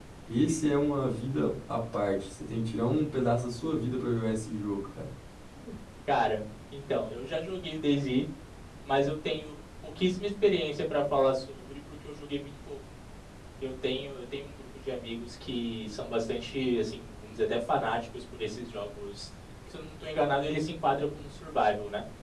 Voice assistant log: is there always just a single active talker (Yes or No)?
Yes